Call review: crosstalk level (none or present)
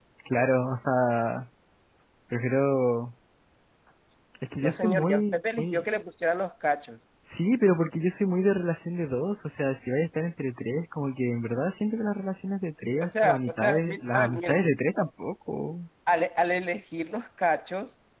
present